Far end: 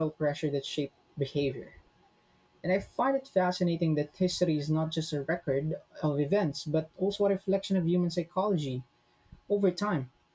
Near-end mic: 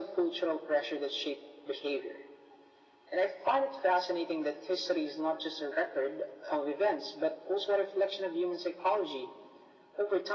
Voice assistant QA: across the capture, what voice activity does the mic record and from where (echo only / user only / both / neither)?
echo only